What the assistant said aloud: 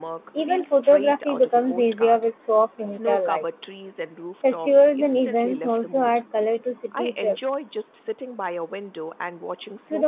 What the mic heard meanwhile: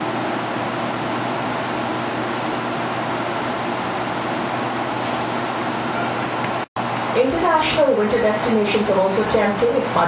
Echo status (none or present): none